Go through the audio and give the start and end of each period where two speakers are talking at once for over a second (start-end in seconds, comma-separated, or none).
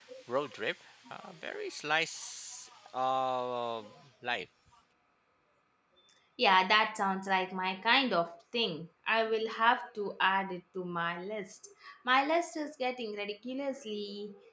none